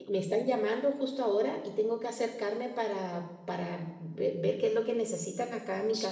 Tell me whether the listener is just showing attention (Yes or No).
No